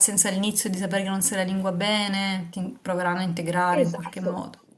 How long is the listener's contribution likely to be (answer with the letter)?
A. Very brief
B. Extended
B